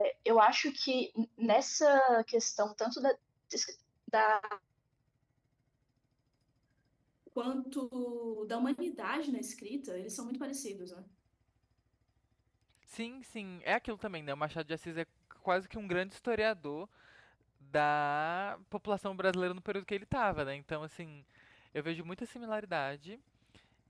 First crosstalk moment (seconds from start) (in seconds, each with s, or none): none